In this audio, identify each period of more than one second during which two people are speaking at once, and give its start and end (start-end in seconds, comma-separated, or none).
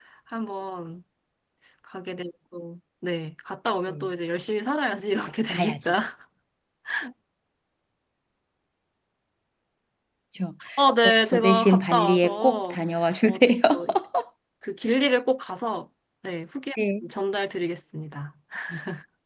11.0-12.8